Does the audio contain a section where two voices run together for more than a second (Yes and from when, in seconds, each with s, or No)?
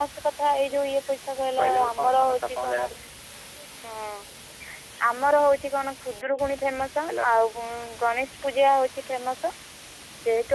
Yes, from 1.6 s